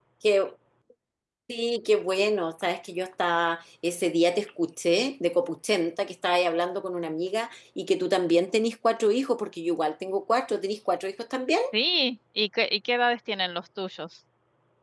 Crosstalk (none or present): none